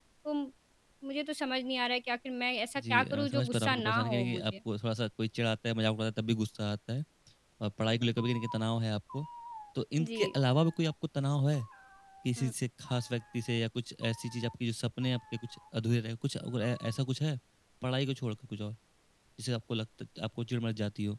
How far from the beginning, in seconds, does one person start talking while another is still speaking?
2.8 s

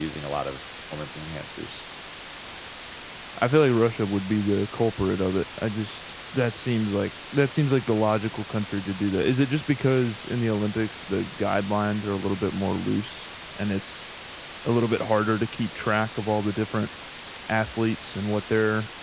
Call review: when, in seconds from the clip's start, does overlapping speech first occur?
none

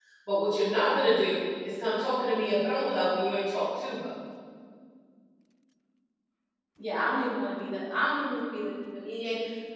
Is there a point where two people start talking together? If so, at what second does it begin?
none

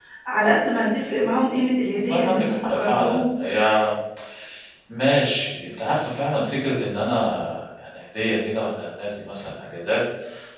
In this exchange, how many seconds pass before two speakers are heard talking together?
1.9 s

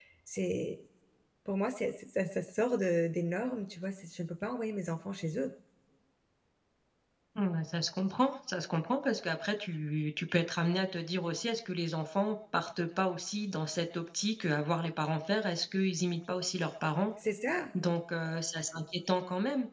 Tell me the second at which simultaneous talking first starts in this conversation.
none

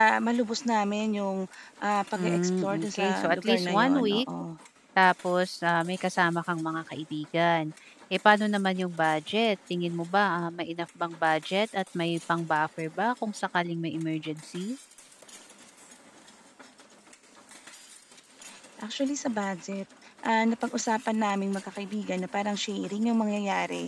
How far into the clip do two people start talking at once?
2.1 s

